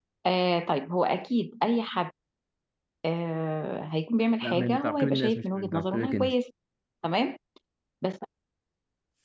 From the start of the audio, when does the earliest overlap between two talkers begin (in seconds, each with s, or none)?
4.4 s